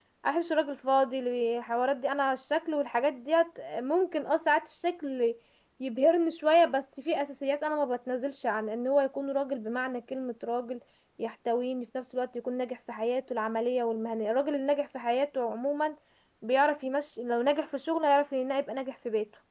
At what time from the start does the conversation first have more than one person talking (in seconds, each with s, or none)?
none